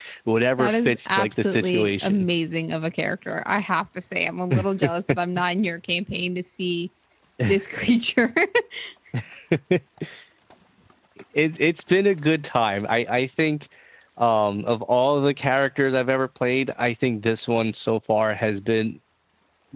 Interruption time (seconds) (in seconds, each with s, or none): 0.6 s